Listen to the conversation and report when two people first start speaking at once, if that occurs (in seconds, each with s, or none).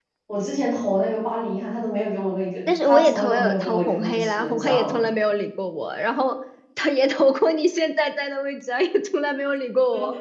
2.8 s